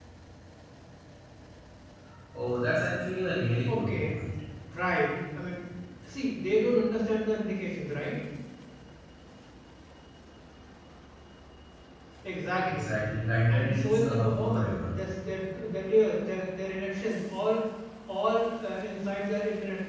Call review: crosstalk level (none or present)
present